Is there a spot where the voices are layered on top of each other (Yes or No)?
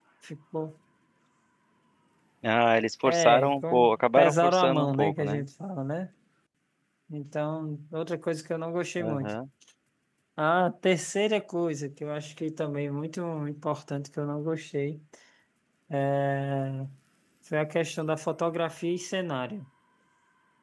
Yes